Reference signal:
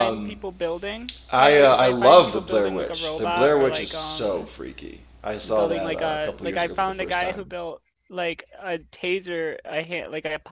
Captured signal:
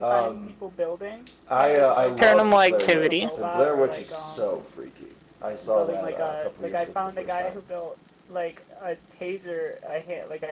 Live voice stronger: Yes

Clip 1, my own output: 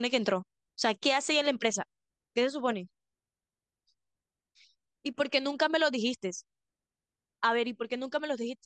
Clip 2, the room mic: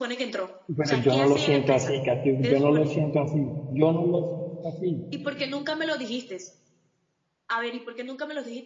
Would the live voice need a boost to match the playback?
No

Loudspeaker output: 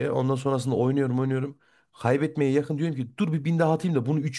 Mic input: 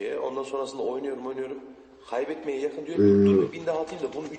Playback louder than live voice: No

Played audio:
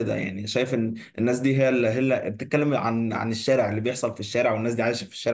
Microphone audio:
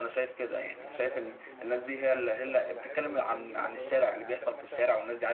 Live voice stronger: No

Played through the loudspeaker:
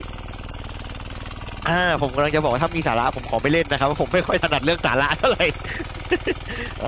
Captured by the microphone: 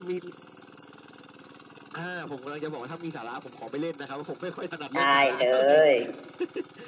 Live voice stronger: Yes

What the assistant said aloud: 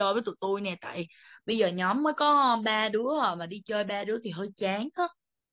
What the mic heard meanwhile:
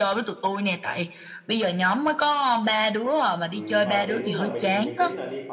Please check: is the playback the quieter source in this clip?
No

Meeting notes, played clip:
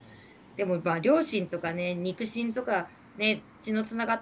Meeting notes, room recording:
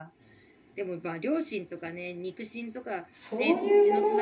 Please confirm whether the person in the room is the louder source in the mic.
Yes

